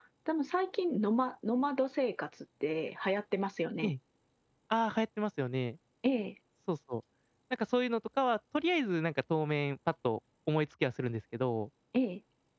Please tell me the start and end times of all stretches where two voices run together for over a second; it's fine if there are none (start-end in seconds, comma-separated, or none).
none